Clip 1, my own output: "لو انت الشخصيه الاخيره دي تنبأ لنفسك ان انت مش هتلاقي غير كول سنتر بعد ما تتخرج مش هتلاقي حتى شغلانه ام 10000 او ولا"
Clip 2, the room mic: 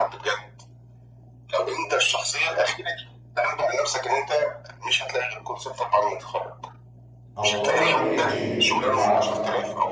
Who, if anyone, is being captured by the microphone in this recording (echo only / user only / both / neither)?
both